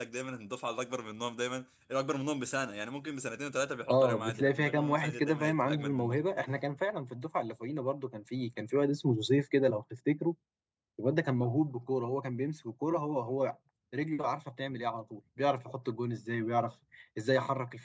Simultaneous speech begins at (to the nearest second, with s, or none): 4 s